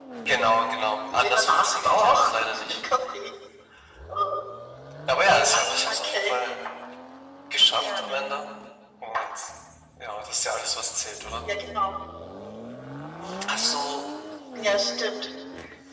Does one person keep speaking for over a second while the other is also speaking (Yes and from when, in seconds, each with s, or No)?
Yes, from 1.1 s